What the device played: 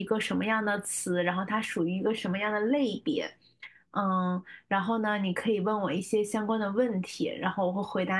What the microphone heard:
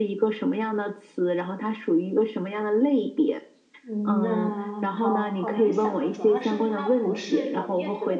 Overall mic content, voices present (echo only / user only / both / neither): both